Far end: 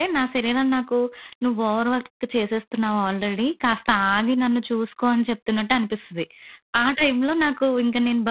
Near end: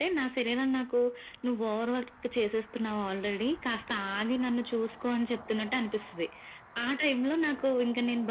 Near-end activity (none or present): none